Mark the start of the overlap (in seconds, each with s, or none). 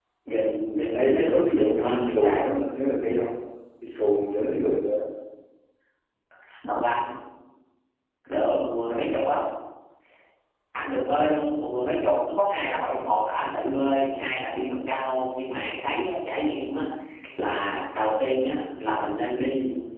0.9 s